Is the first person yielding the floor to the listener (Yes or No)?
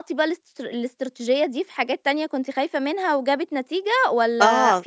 Yes